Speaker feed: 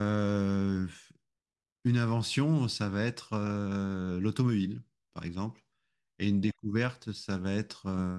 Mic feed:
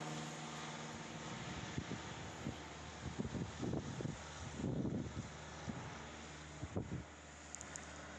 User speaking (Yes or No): No